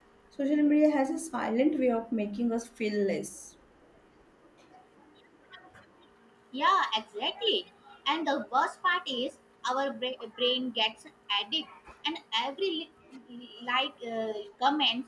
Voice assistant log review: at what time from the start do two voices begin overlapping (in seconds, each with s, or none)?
none